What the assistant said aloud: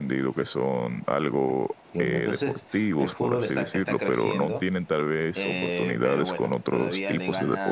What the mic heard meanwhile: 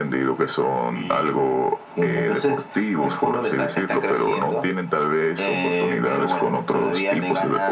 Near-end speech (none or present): present